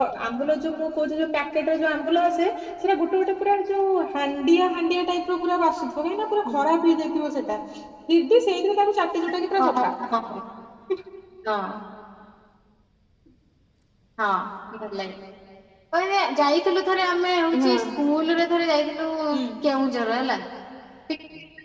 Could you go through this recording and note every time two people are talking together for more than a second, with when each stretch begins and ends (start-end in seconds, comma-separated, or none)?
none